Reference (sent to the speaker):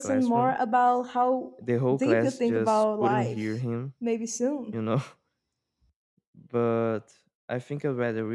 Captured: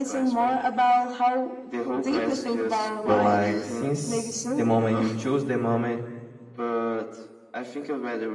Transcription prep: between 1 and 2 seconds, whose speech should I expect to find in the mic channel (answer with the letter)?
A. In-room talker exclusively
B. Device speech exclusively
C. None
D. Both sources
B